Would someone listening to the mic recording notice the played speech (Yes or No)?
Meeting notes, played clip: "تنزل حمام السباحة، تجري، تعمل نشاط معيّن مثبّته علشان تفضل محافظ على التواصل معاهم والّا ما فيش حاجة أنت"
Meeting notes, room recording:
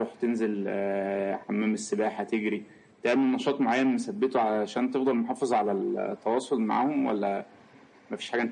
Yes